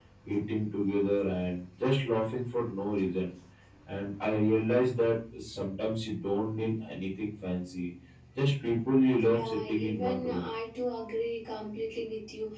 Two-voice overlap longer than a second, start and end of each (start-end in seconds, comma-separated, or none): 9.2-10.4